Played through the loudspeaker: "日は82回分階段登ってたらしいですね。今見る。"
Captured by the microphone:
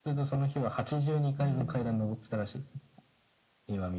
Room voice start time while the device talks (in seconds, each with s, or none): 1.4 s